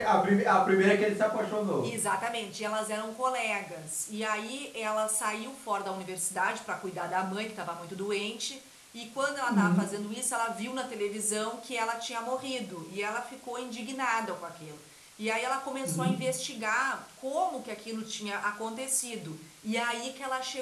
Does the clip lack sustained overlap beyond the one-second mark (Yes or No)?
Yes